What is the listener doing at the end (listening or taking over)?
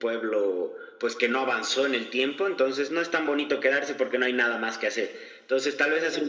listening